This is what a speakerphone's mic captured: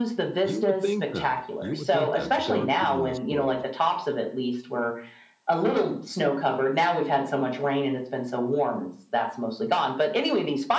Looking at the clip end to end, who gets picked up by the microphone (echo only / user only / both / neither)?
both